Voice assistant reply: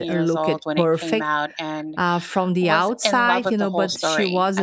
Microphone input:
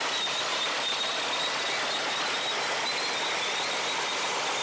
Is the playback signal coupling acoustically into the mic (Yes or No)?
No